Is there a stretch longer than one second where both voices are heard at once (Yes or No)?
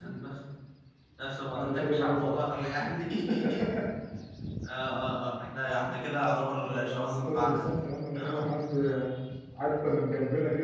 Yes